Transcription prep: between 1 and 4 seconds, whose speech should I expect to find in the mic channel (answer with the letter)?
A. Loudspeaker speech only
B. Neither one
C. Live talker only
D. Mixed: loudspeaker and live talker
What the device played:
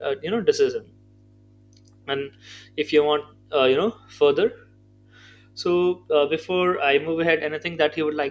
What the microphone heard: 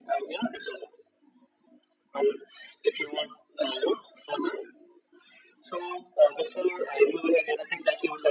A